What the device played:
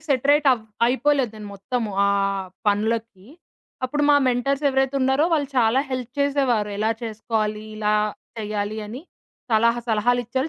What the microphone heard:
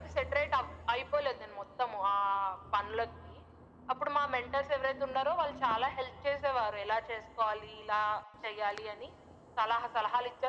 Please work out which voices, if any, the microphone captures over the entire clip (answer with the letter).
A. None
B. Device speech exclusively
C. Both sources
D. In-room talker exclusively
B